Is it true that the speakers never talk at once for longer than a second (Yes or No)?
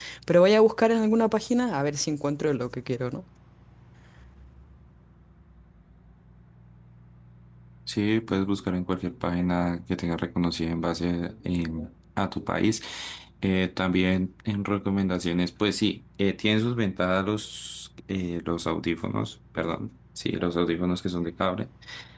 Yes